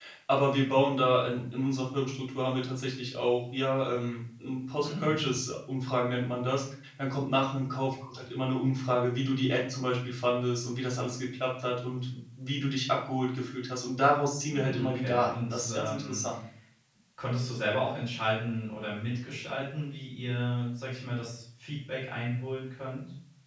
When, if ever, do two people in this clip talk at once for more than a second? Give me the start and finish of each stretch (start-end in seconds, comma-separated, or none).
14.5-16.2